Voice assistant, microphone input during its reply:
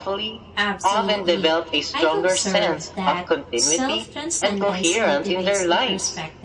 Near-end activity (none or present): present